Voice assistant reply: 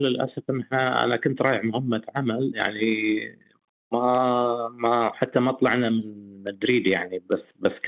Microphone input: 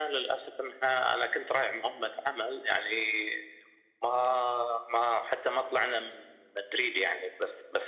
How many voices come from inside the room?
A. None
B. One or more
A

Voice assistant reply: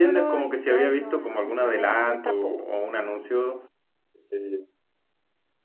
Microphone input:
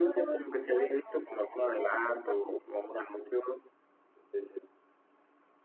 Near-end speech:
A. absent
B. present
A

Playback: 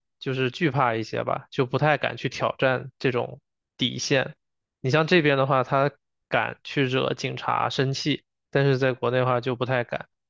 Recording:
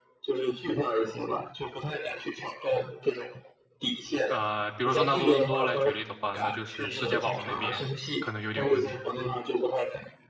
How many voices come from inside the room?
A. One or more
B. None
A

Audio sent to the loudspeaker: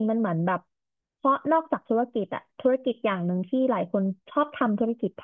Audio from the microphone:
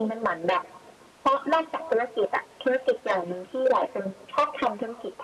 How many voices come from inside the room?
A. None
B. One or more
A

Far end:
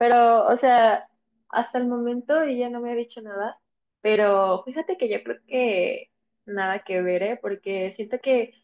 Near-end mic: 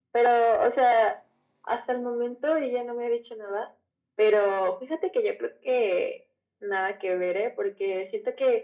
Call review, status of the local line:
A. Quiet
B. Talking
A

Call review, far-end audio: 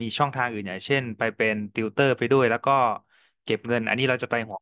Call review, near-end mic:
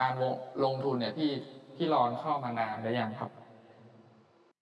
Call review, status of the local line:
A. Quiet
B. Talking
B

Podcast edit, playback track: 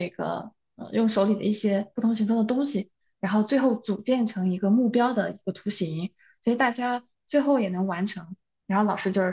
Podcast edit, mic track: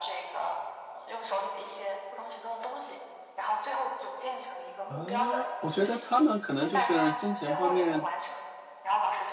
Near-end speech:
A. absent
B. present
B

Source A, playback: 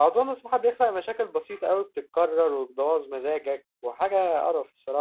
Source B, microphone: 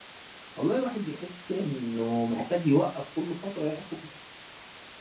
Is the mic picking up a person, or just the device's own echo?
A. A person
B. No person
A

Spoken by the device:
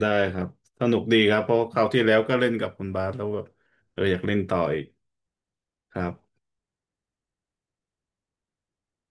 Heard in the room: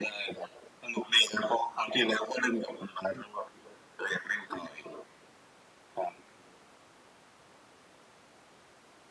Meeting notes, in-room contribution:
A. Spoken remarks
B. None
B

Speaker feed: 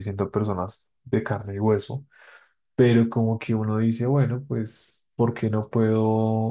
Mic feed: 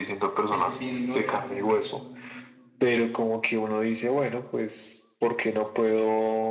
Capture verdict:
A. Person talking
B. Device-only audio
A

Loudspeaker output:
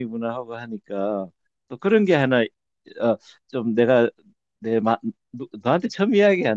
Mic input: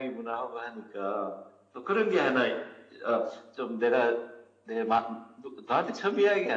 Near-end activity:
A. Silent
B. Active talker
A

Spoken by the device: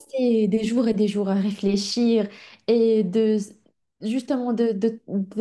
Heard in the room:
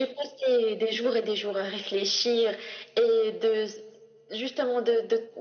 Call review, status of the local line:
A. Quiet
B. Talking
A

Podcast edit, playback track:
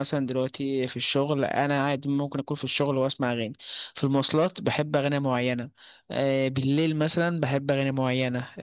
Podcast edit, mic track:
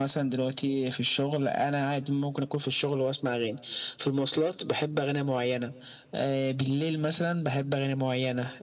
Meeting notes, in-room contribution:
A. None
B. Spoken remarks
A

